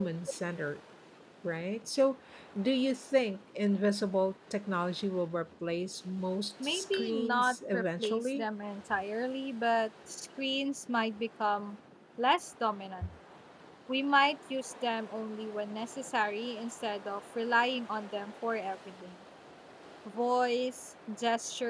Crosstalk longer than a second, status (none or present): present